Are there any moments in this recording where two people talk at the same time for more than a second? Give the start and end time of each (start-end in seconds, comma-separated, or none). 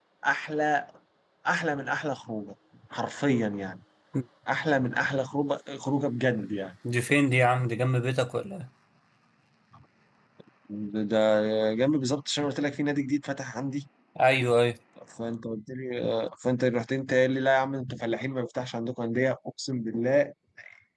none